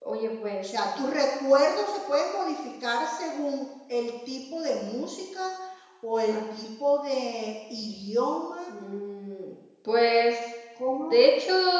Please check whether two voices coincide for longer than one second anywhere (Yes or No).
No